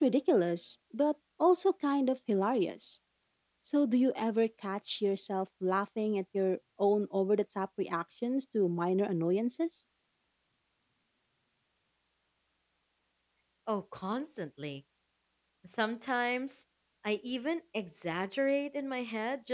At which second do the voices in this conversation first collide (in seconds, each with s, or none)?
none